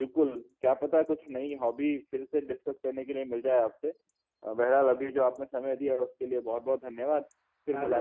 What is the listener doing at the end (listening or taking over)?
taking over